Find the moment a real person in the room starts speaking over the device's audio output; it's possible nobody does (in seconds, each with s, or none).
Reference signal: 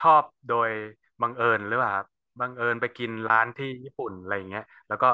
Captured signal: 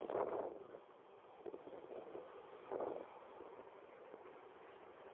none